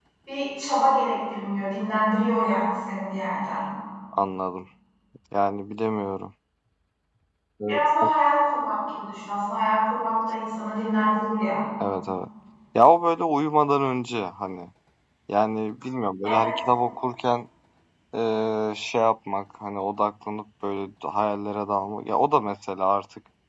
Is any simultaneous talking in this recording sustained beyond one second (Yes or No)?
No